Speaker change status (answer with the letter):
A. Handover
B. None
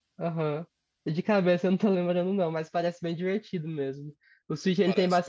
B